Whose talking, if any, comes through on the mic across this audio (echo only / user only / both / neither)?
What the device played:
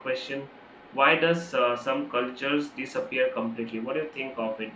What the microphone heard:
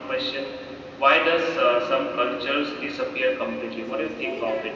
both